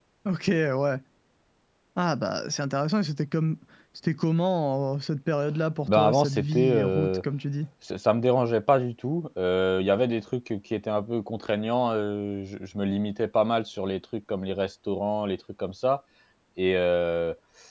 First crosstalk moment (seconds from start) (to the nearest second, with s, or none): 6 s